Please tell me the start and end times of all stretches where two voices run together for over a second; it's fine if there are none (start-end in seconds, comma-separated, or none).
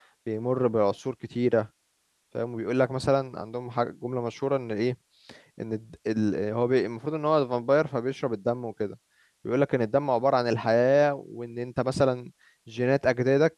none